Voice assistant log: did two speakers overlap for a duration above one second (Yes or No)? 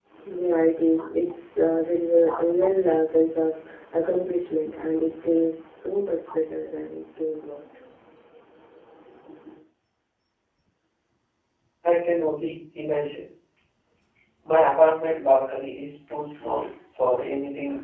No